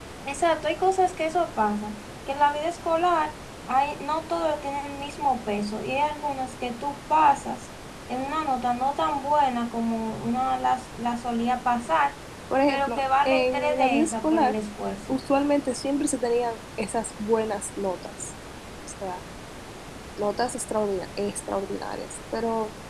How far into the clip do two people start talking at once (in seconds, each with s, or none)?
12.7 s